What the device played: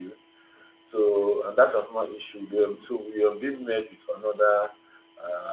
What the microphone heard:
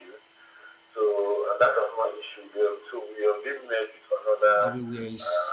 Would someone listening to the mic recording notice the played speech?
Yes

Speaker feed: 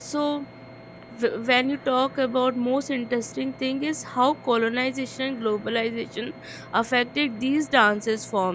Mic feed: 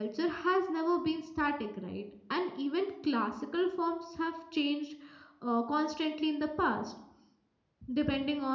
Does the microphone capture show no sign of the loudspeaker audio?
Yes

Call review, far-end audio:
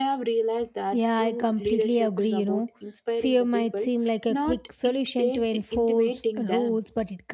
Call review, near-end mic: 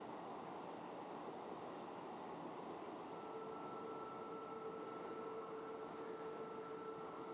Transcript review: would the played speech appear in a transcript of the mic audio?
No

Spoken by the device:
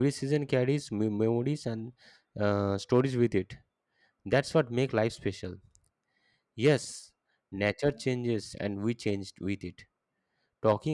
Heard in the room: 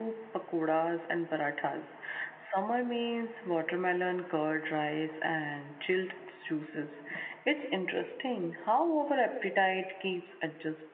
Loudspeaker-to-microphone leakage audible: No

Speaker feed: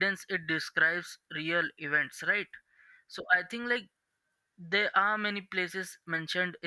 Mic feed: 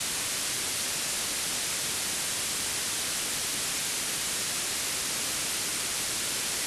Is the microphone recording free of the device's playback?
Yes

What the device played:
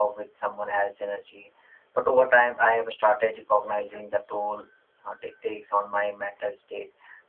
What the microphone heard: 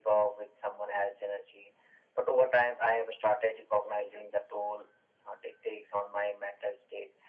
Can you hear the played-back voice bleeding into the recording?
Yes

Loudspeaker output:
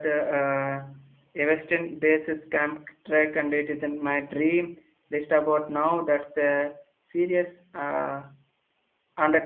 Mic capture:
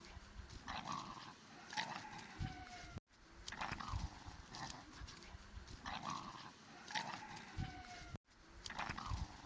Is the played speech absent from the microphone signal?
Yes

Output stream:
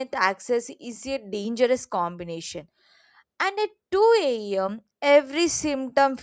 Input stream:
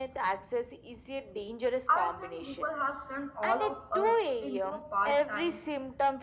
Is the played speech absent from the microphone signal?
No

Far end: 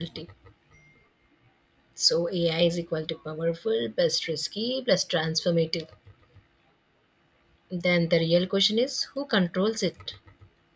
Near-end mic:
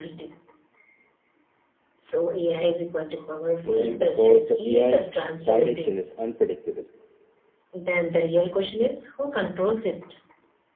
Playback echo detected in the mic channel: Yes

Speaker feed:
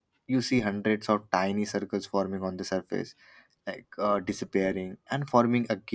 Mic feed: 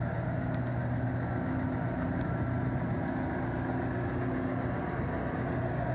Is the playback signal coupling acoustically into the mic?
No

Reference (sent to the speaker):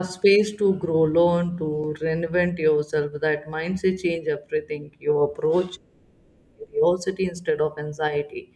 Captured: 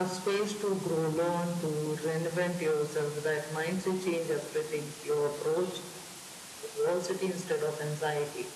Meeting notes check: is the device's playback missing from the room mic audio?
No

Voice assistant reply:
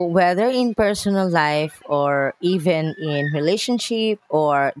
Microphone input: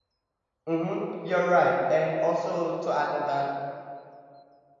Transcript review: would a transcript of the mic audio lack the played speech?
Yes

